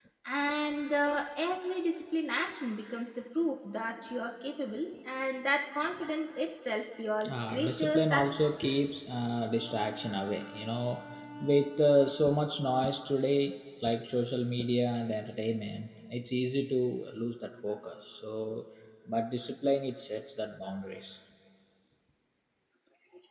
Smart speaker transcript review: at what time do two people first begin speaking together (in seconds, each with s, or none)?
7.2 s